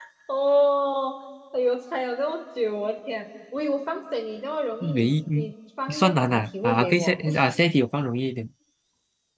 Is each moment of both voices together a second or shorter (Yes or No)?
No